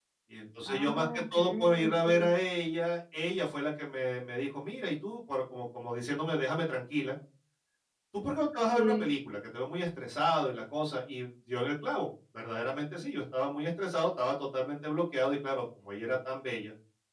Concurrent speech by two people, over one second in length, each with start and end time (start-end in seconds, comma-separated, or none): 0.7-2.3